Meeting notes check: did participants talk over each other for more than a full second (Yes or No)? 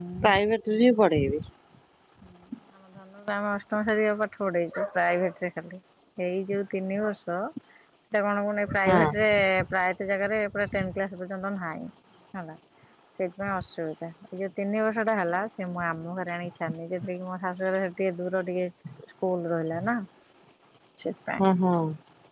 No